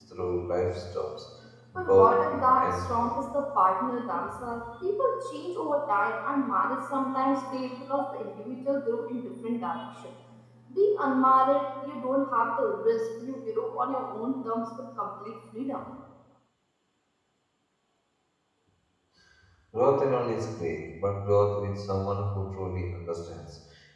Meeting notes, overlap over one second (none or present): present